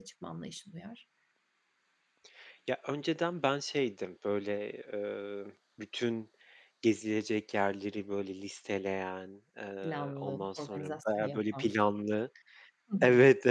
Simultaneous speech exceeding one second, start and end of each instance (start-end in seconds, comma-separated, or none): 9.8-11.7